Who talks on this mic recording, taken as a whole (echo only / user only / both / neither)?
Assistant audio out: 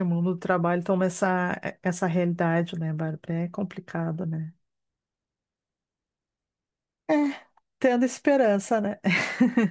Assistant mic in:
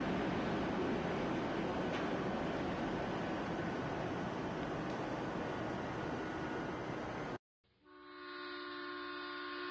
neither